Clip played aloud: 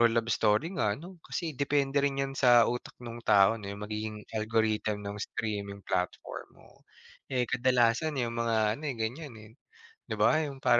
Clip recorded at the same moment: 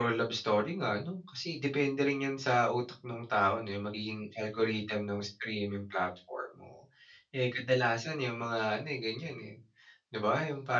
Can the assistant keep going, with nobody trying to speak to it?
Yes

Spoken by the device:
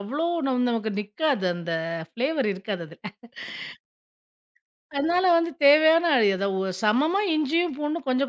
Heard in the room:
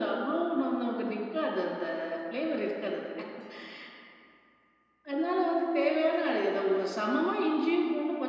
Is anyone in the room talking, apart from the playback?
No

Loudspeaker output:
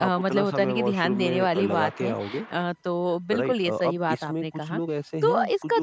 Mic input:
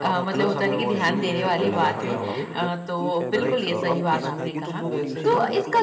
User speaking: Yes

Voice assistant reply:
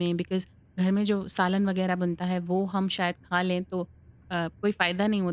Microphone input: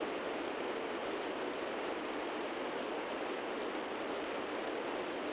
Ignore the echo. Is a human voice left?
No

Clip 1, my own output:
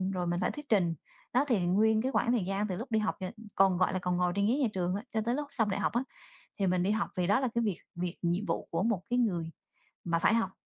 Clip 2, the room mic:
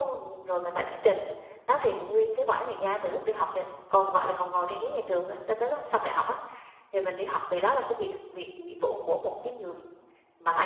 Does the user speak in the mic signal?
No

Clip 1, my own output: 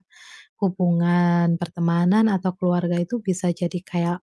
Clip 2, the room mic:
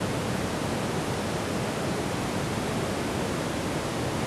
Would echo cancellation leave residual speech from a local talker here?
No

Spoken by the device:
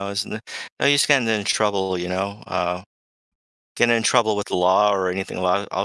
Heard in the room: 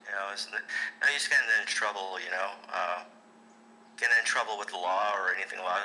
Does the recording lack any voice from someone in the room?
Yes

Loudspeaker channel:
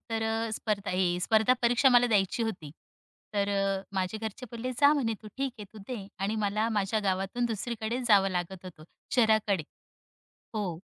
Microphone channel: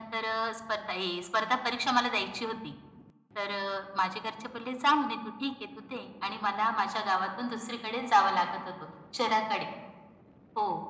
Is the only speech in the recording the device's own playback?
Yes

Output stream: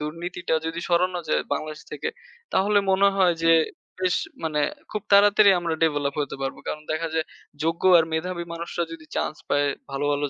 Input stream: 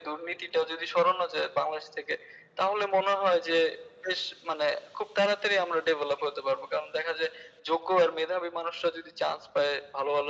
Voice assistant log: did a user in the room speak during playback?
No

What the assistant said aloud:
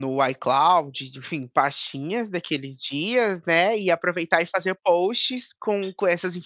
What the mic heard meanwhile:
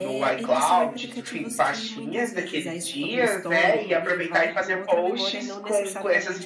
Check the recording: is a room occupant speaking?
Yes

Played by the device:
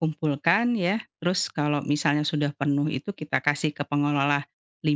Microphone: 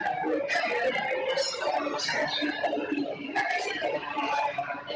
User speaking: No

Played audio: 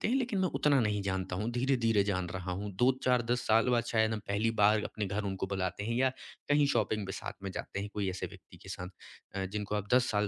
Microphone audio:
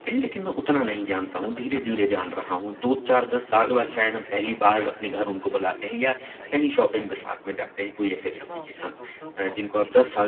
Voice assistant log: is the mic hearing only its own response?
No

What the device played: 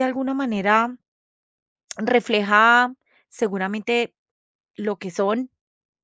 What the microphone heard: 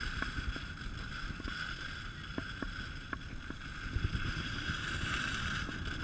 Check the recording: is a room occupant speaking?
No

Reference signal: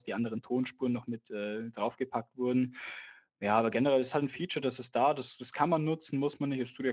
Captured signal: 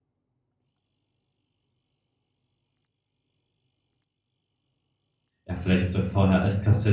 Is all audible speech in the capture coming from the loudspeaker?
No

